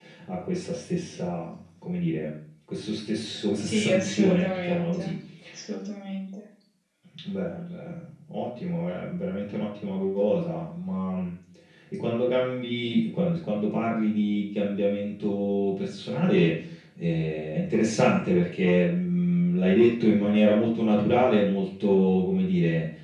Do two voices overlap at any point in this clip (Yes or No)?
Yes